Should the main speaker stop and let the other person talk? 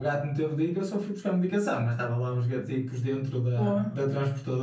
No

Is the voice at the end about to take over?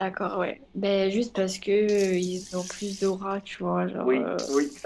Yes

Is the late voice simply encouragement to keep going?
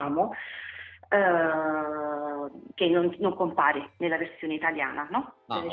Yes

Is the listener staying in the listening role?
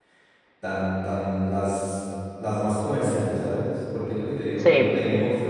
Yes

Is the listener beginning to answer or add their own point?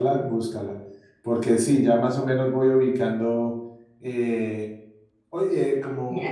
No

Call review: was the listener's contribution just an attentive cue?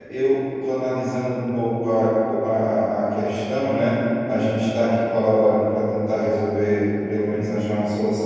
Yes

